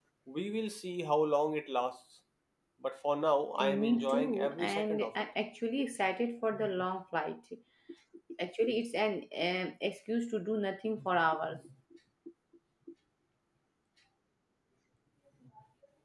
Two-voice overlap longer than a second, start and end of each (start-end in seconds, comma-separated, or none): 3.6-5.3